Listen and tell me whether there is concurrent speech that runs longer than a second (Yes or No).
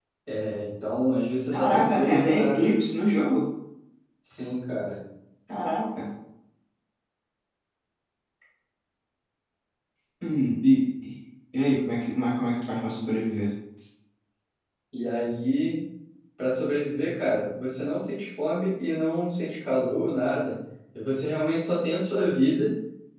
Yes